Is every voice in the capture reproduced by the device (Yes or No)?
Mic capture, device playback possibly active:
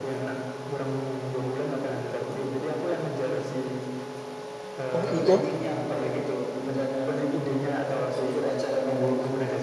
No